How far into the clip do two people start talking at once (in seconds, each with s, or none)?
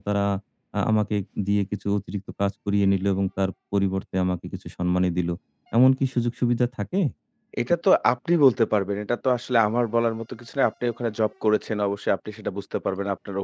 none